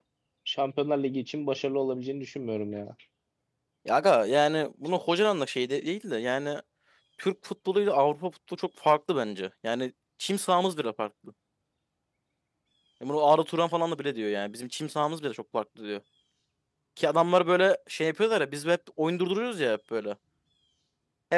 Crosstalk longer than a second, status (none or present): none